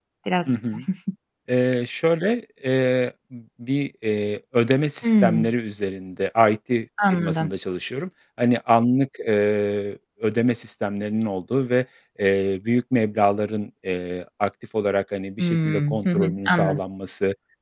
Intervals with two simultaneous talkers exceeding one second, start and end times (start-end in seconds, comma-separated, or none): 15.4-16.8